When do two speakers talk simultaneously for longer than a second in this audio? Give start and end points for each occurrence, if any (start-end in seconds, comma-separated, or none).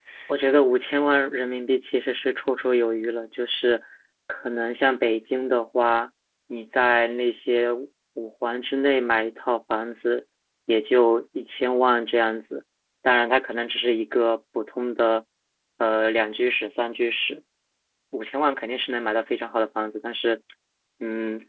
none